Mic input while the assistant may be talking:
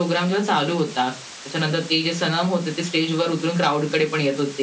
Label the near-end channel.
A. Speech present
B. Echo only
B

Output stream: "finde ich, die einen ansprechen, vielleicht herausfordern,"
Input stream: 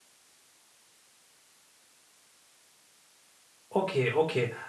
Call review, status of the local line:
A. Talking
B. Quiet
A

